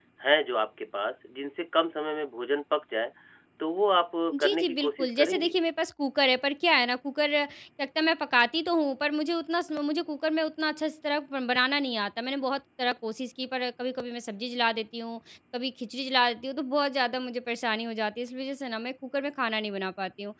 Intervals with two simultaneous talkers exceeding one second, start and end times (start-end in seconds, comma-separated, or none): 4.3-5.5